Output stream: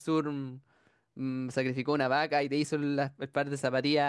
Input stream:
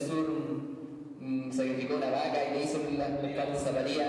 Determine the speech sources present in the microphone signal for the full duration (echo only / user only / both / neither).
both